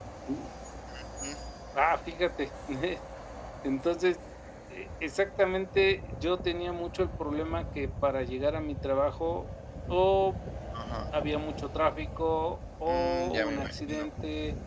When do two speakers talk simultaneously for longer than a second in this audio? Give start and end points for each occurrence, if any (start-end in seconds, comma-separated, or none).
12.9-14.1